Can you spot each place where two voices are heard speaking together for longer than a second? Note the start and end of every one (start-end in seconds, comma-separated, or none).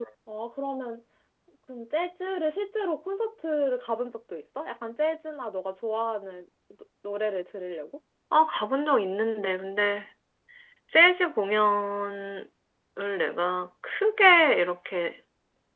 none